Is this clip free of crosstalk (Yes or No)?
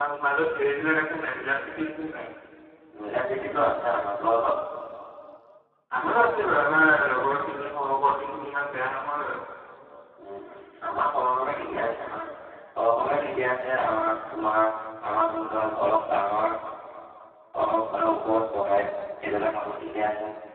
Yes